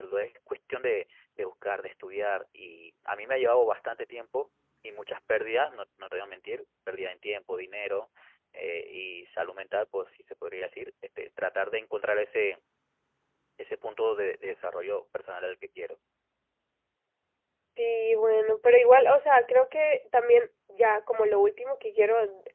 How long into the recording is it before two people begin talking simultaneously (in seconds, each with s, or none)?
none